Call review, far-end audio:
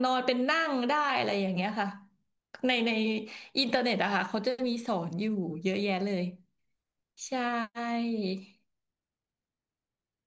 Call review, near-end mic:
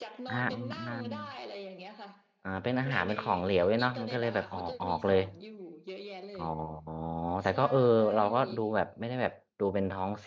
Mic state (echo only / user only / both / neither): both